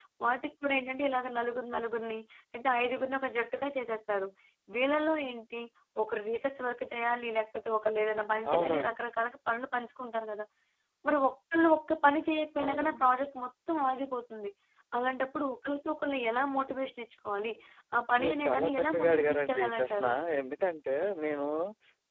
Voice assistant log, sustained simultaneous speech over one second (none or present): present